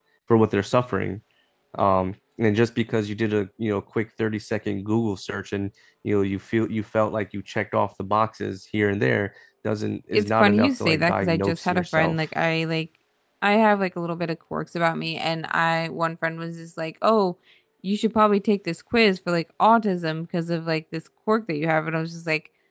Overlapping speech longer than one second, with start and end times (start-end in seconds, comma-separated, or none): 10.1-12.2